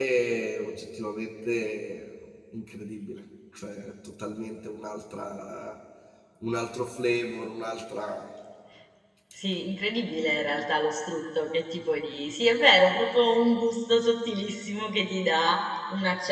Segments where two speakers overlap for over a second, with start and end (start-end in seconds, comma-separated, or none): none